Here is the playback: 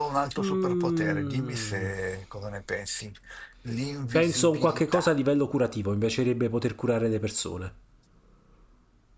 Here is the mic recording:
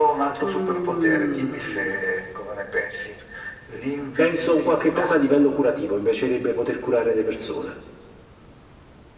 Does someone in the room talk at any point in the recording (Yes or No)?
No